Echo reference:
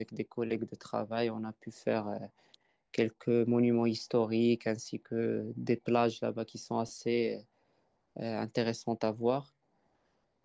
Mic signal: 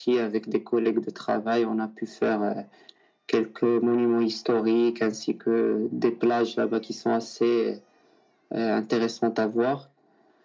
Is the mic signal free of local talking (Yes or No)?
Yes